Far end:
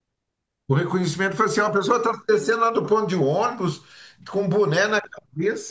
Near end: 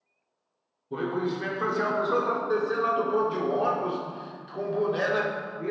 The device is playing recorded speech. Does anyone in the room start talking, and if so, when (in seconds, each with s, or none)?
none